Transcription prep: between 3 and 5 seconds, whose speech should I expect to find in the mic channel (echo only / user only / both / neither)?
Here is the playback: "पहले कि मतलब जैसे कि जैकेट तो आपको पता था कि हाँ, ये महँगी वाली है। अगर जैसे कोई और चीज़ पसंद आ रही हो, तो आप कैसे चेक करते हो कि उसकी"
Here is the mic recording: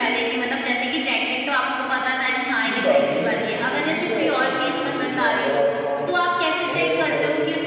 both